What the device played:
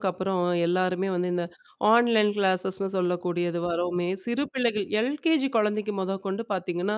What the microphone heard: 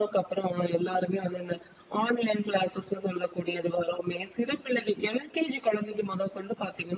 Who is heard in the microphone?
echo only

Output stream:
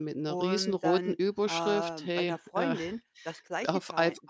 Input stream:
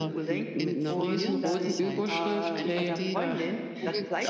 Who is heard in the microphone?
both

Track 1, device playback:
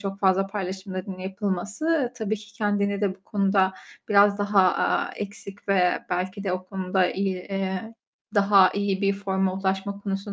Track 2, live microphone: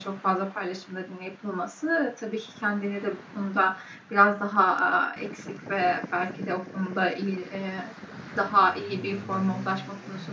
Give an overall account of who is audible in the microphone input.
echo only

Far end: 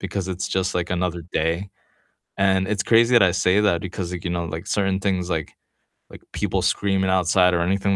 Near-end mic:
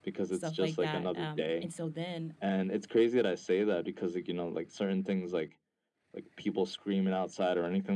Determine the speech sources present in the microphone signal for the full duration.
both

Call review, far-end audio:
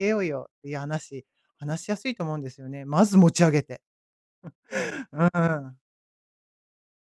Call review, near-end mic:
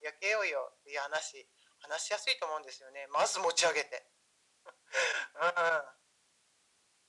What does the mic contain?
echo only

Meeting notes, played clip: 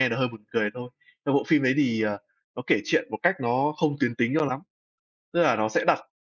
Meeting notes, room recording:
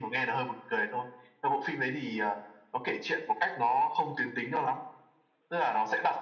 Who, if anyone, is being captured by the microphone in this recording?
echo only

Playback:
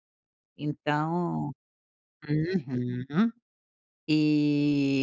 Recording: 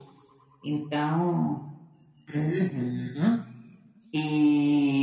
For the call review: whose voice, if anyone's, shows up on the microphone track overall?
echo only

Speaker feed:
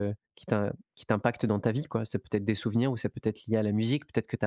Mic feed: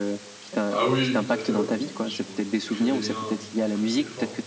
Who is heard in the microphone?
both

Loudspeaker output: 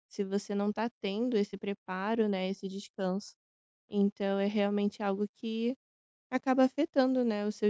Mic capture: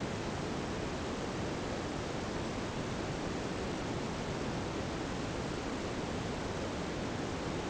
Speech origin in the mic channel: neither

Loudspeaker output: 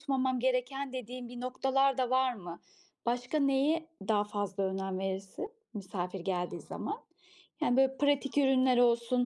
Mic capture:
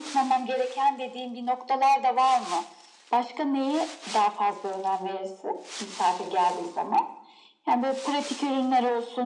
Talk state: echo only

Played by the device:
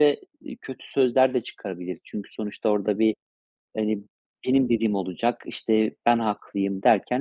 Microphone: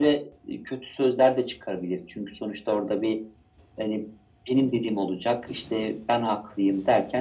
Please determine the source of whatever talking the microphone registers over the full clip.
echo only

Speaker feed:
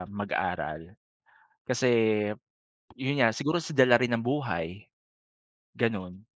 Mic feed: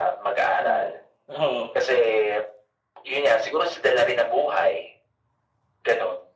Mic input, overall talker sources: both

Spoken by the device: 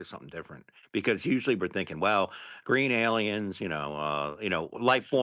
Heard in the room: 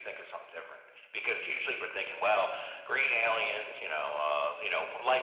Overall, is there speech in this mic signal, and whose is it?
echo only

